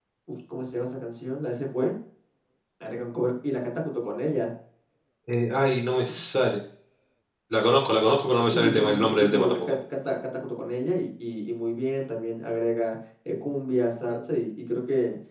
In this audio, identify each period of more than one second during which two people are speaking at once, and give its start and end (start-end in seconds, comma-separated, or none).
8.5-9.7